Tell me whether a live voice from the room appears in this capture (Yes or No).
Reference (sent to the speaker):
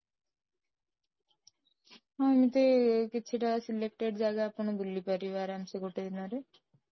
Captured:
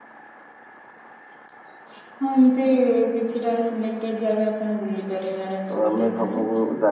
Yes